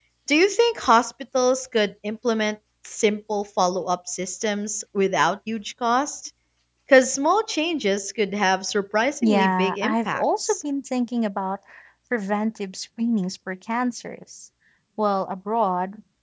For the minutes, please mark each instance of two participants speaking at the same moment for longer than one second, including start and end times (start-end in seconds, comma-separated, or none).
9.2-10.6